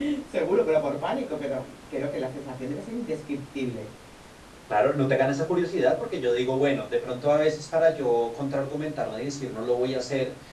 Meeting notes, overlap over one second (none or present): none